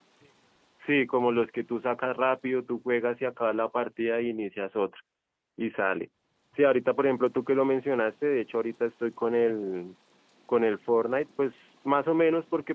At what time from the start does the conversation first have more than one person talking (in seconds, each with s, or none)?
none